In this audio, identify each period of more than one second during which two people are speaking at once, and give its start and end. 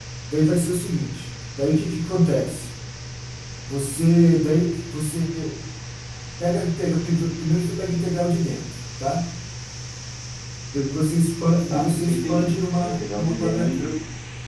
11.7-13.9

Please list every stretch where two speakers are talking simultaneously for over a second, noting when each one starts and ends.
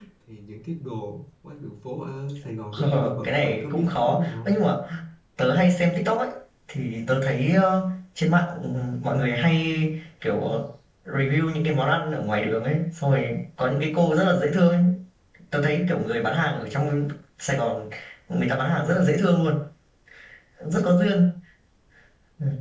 2.7-4.6

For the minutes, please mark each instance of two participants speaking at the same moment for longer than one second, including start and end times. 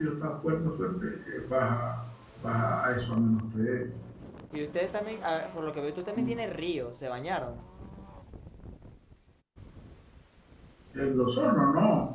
none

